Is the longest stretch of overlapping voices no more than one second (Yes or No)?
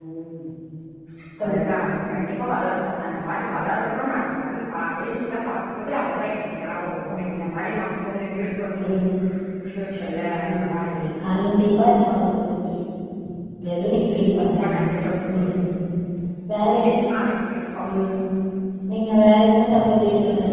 Yes